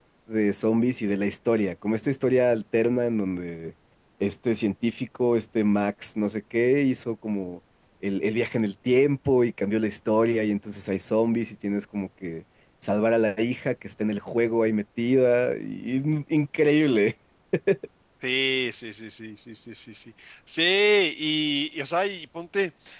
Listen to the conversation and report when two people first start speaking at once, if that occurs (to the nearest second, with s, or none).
none